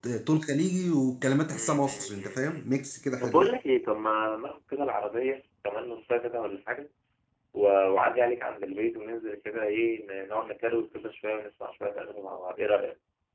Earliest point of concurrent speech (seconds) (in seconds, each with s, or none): 1.5 s